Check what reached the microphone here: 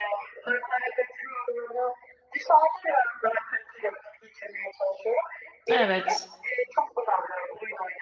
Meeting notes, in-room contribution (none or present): present